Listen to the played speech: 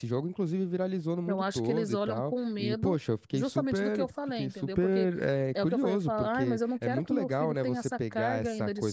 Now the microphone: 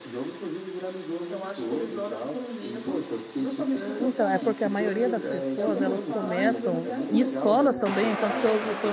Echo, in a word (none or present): present